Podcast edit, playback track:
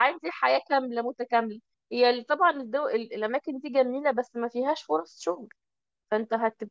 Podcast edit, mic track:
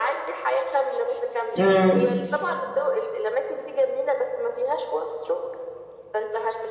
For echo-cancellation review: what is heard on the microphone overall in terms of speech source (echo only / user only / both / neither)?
both